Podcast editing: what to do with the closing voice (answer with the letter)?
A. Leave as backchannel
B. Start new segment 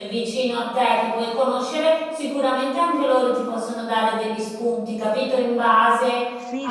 B